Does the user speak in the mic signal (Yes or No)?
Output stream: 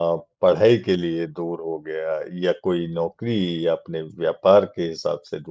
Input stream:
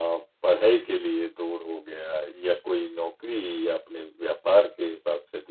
No